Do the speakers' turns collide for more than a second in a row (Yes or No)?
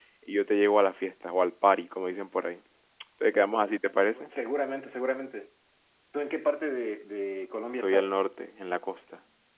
No